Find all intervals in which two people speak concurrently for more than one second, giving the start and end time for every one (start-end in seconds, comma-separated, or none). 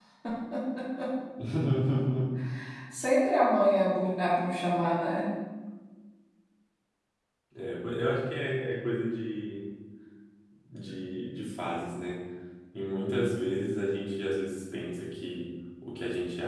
none